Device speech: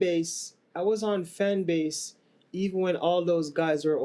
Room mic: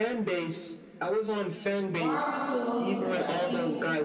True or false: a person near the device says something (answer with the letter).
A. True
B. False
A